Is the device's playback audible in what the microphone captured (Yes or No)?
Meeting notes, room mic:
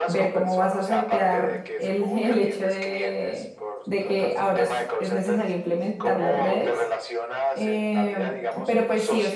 Yes